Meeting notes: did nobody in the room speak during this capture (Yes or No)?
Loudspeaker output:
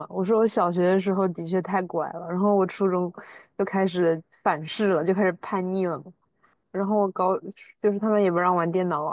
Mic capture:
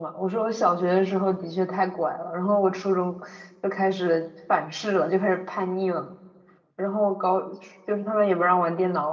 Yes